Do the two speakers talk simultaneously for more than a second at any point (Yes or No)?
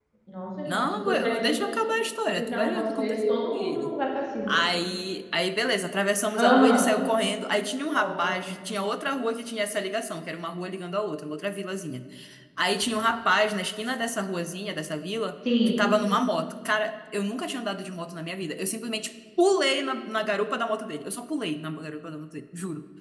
Yes